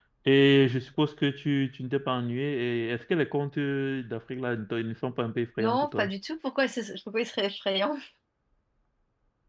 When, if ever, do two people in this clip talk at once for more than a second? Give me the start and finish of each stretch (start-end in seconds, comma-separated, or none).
none